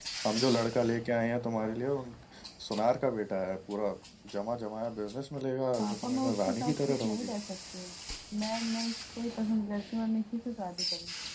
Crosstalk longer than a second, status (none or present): present